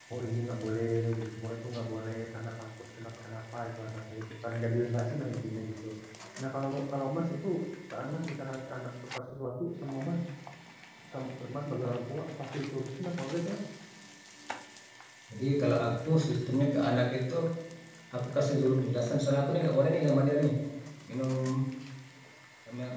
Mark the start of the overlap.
none

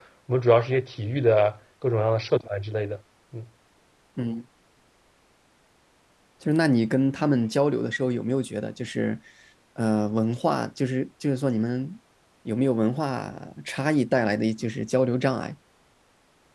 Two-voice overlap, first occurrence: none

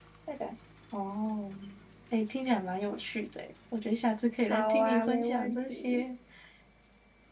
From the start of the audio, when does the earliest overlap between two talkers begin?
4.4 s

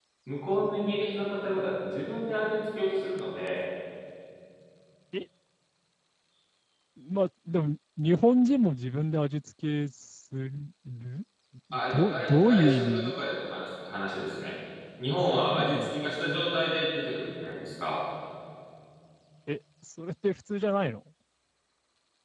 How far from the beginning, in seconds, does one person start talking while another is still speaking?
11.9 s

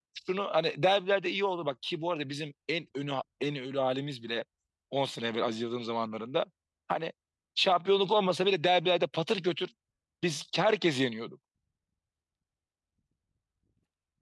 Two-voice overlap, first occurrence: none

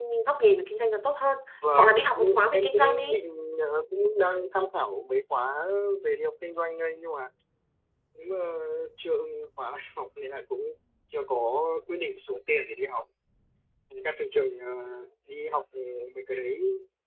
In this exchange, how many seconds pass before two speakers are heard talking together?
1.8 s

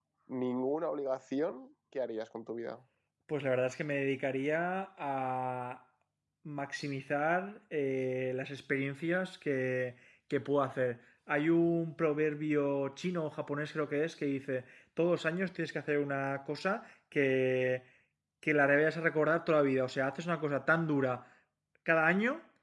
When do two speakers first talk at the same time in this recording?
none

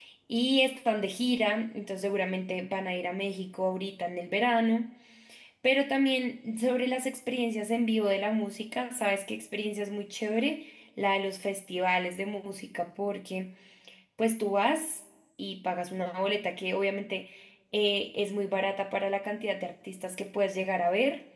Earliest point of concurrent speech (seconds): none

